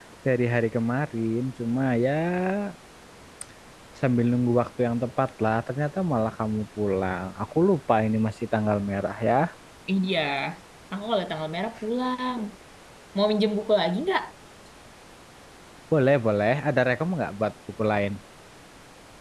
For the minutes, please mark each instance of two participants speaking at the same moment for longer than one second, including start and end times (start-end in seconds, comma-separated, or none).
none